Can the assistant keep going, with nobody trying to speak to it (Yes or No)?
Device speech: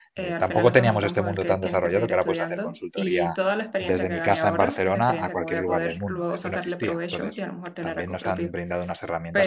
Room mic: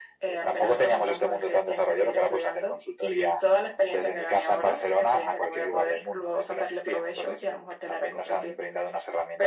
Yes